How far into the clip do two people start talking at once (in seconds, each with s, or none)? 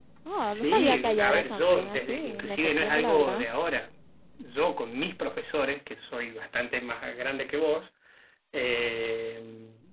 0.5 s